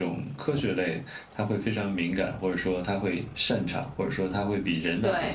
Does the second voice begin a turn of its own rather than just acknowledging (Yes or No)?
No